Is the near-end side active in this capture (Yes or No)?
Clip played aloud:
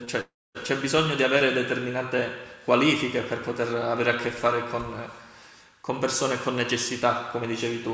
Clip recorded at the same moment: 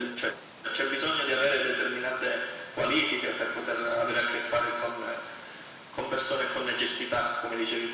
No